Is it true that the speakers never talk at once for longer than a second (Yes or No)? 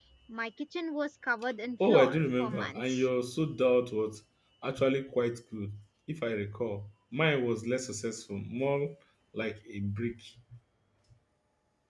No